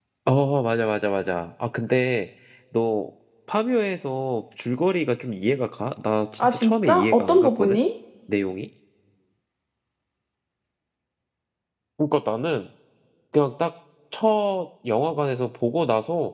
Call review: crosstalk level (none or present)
present